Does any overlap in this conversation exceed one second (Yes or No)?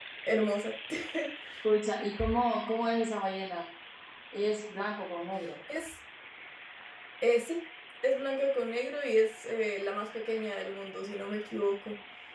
No